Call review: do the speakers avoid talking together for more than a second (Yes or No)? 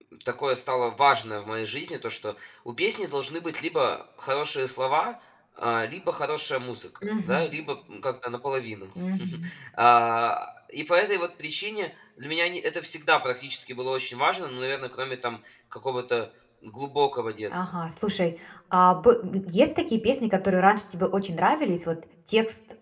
Yes